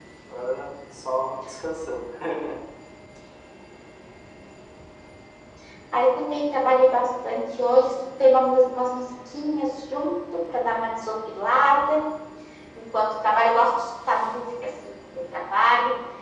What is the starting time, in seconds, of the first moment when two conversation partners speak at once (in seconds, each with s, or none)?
none